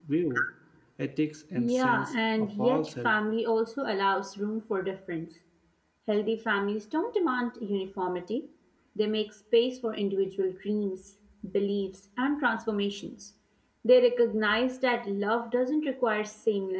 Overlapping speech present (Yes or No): Yes